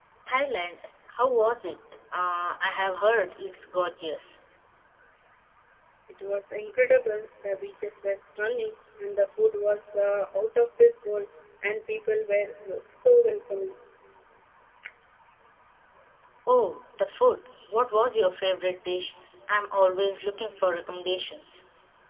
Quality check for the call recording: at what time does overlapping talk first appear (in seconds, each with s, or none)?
none